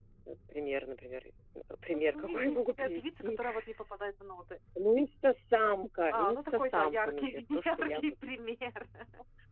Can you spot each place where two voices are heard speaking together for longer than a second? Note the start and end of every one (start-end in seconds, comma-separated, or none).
1.9-3.4, 6.1-8.0